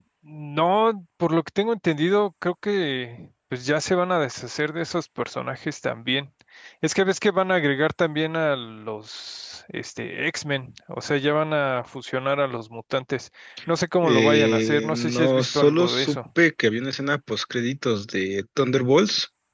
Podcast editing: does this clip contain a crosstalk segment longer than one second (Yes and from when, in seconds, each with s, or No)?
Yes, from 14.0 s